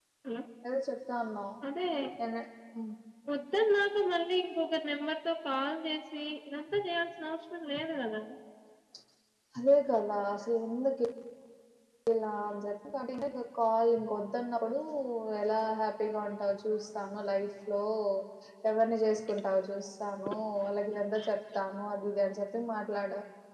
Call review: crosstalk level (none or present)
none